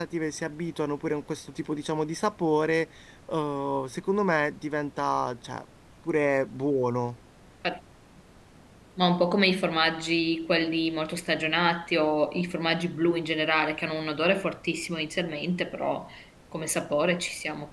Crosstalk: none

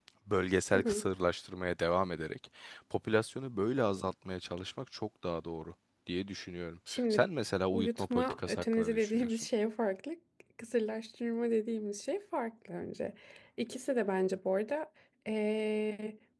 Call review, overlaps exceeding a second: present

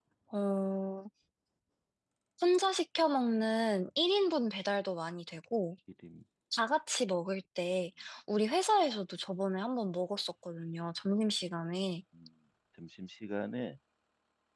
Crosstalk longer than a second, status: none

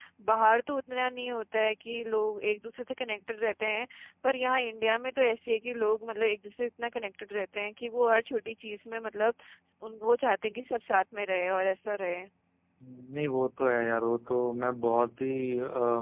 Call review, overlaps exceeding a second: none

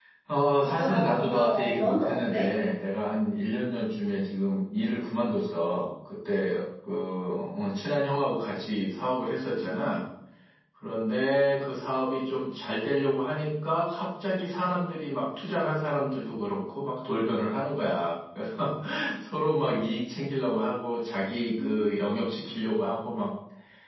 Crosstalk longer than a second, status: present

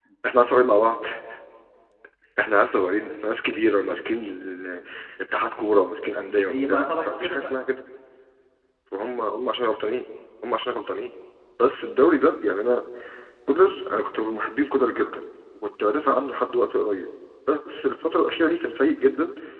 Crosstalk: present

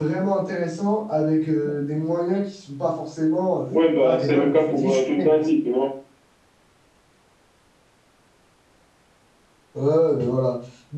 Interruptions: present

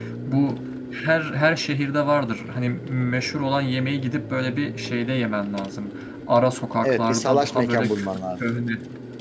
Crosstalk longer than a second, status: present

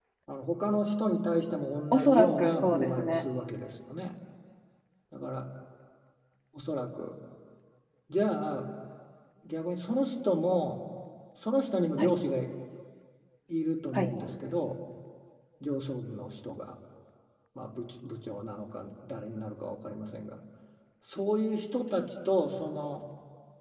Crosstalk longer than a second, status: present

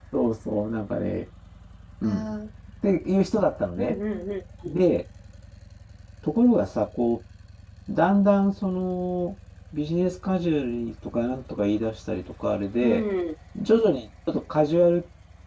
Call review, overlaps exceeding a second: none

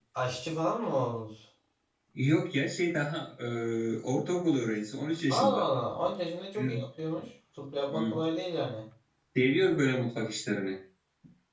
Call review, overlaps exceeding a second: none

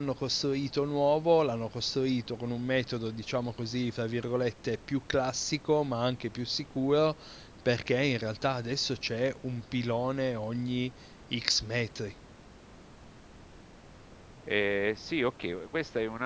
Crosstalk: none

